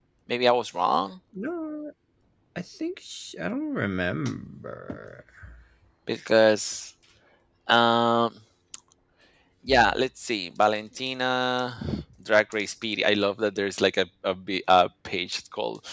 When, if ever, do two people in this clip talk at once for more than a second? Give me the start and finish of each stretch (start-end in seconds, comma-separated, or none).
none